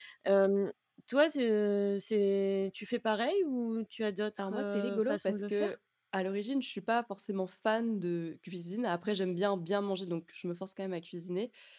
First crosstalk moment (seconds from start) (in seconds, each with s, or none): 4.4 s